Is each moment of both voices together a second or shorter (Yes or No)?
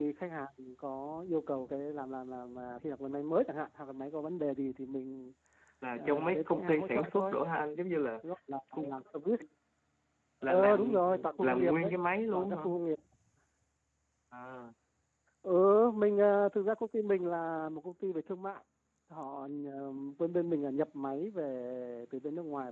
No